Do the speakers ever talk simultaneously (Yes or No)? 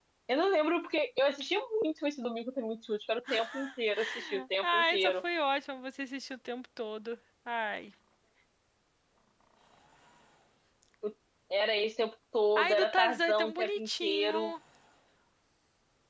Yes